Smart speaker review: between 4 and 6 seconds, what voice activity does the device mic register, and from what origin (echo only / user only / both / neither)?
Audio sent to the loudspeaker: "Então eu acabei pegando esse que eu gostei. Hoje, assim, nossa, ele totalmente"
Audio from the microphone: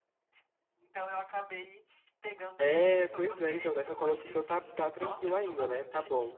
both